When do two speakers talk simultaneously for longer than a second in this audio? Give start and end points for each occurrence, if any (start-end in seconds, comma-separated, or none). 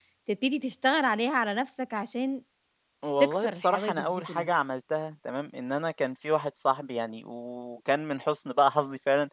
3.2-4.5